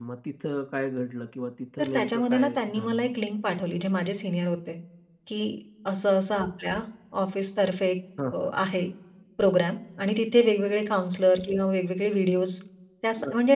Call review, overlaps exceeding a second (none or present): present